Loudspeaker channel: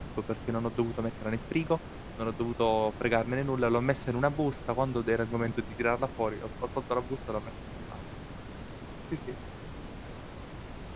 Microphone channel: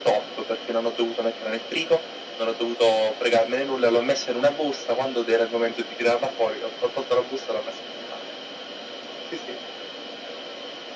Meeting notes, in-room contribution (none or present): none